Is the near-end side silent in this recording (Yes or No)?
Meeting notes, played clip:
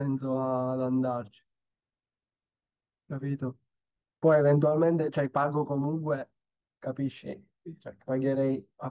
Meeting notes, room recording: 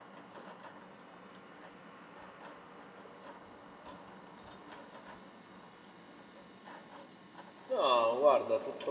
No